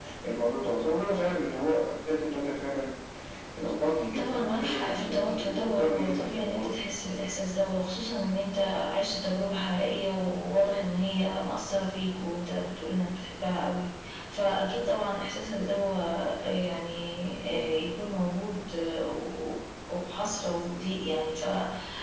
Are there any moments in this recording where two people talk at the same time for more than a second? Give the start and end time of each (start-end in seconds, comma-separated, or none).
4.2-6.7